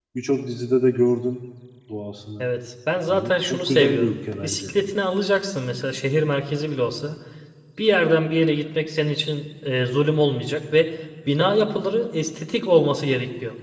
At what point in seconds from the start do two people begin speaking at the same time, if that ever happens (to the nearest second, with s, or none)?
3 s